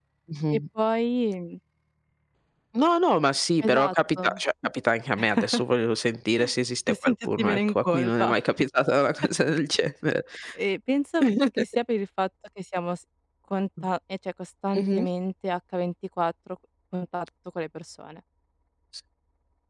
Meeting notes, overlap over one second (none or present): present